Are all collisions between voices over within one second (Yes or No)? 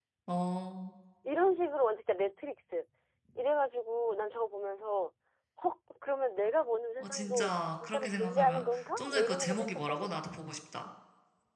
No